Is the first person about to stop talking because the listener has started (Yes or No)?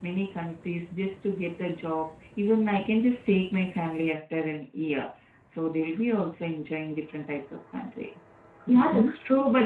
Yes